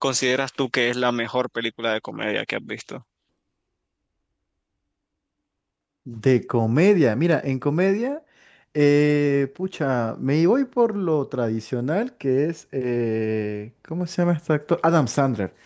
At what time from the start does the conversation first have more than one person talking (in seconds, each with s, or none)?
none